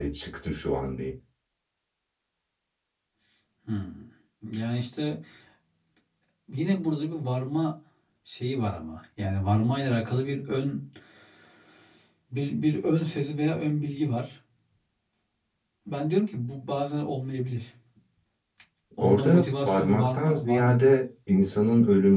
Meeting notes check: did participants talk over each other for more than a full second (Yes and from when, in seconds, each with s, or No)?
Yes, from 19.0 s